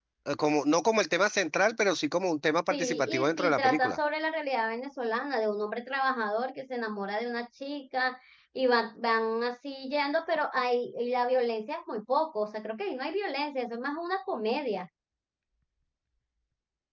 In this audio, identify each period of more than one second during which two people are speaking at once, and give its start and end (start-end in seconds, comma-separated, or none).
2.7-4.0